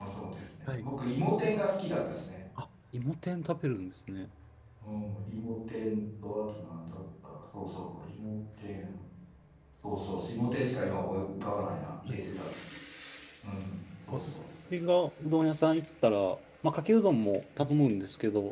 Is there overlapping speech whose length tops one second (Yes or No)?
No